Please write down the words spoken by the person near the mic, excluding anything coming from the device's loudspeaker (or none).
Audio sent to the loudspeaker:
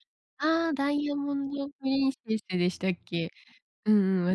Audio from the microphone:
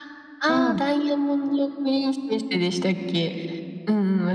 うん。